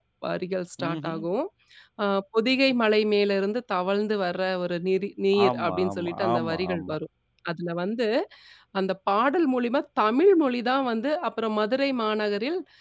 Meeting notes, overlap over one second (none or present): present